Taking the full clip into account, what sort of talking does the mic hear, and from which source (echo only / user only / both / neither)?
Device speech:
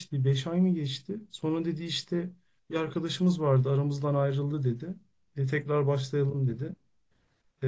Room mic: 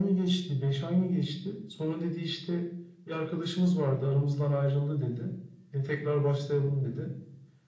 echo only